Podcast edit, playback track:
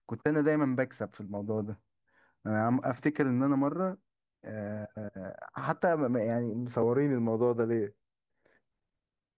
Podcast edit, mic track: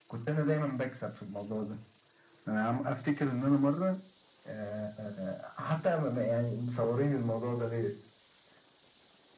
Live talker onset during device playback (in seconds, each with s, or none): none